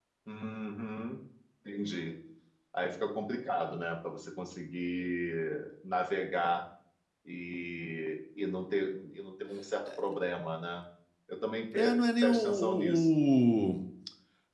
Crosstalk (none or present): present